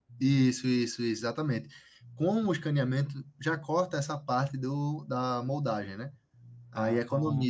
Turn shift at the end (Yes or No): No